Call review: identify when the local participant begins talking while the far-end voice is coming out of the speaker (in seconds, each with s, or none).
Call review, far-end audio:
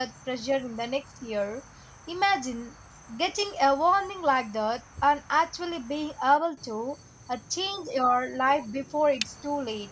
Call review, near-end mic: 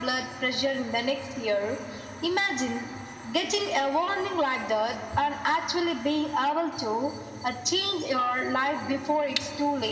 none